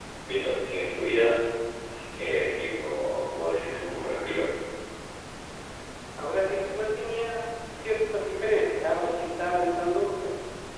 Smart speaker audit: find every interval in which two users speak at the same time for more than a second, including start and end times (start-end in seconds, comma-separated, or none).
none